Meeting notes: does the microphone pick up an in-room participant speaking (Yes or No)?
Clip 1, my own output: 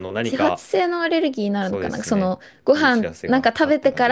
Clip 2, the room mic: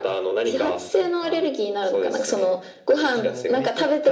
Yes